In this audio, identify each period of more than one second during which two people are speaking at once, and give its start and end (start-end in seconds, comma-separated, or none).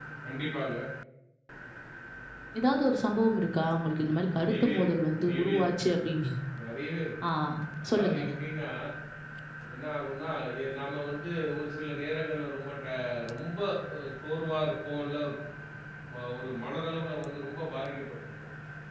4.4-5.8